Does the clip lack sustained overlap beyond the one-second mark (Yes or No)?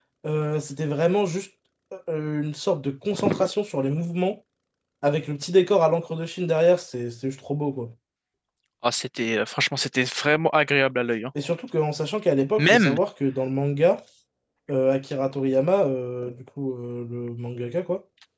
Yes